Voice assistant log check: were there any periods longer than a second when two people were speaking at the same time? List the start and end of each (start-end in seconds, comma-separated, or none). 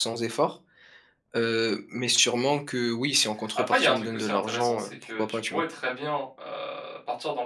3.7-5.6